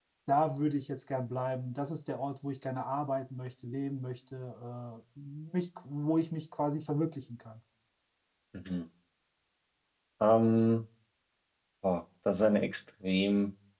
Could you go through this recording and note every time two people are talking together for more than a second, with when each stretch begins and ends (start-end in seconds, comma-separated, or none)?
none